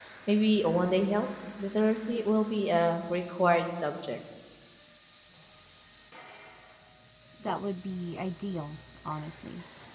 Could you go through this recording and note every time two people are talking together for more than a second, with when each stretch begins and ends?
none

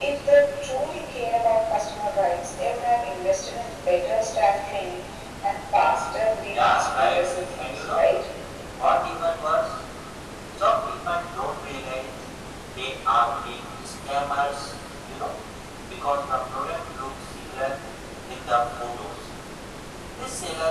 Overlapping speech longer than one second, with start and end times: 6.5-8.1

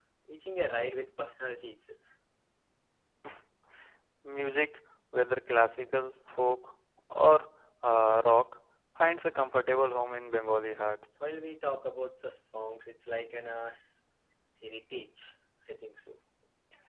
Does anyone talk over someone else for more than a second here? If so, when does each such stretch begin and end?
none

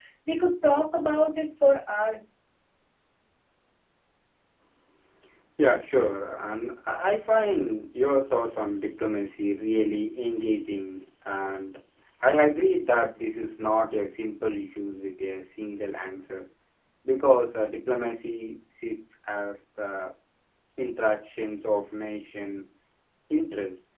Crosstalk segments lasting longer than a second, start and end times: none

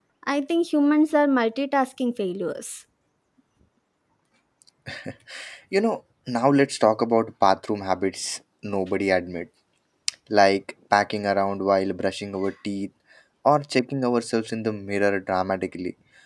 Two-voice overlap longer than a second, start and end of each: none

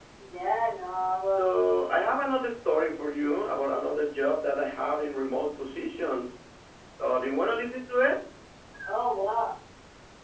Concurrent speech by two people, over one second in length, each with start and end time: none

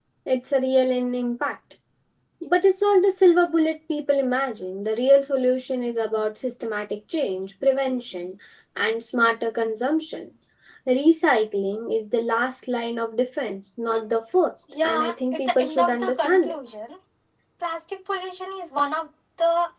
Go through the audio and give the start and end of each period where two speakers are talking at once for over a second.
14.8-16.6

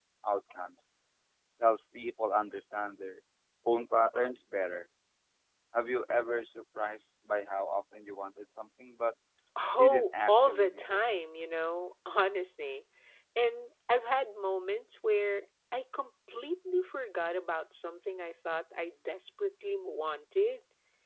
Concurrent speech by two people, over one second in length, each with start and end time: 9.8-11.0

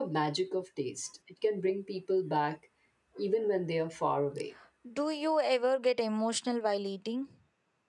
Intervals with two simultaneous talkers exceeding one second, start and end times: none

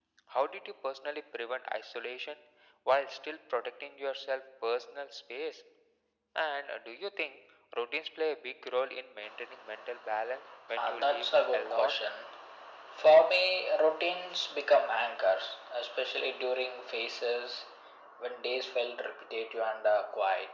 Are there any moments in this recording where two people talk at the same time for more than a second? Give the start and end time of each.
10.8-12.0

